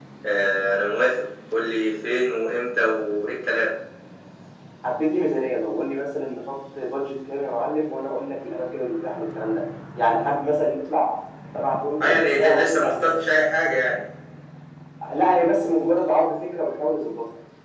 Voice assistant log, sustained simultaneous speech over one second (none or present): present